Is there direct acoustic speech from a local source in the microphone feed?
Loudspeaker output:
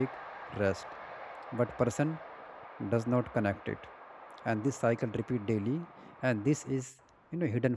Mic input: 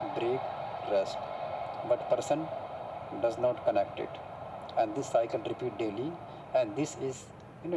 No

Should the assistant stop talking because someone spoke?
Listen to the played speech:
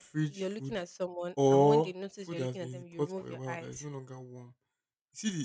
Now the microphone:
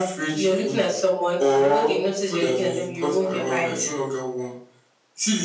No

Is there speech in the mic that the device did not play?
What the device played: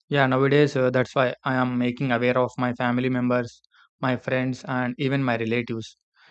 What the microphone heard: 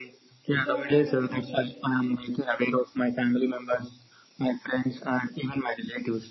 Yes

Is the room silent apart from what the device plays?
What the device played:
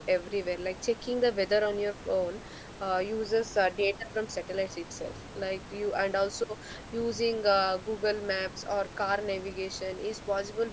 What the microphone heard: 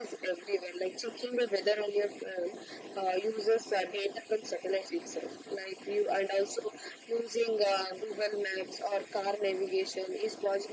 Yes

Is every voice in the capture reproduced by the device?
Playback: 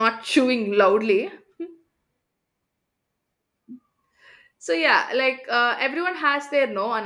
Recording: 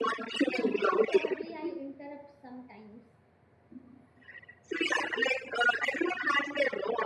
No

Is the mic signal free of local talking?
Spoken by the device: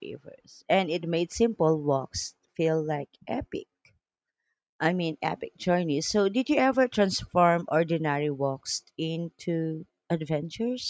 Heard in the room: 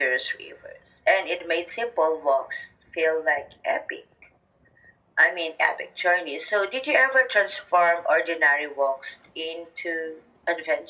Yes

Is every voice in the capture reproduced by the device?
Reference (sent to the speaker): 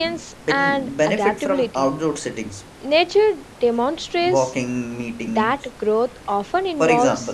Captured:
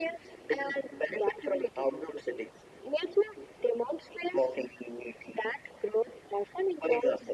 Yes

